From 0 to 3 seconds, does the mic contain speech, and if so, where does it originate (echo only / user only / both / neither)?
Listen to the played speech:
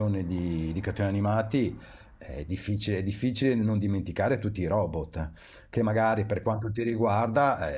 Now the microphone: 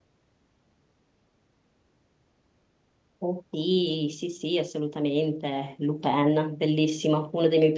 neither